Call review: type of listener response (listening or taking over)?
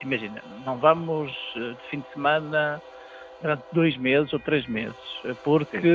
listening